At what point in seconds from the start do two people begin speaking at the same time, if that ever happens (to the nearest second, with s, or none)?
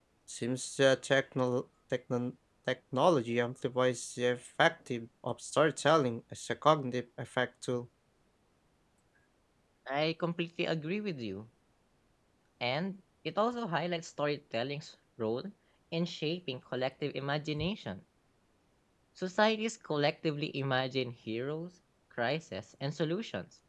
none